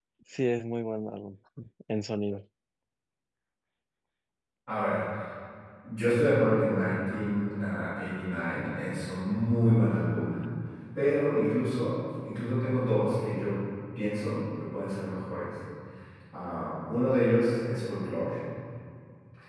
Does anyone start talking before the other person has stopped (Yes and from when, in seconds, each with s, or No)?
No